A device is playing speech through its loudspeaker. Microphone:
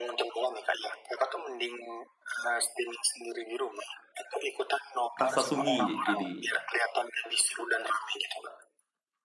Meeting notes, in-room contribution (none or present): present